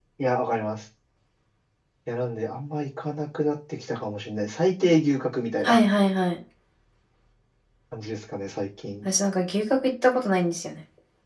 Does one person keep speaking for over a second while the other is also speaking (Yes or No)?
No